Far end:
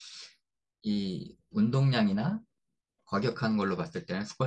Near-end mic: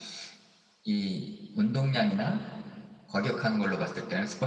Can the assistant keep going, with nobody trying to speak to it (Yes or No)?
Yes